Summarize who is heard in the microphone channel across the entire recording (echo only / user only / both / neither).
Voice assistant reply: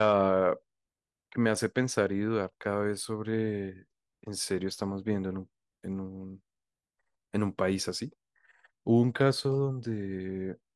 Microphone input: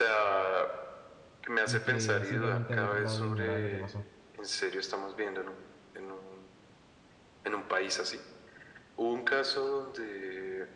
both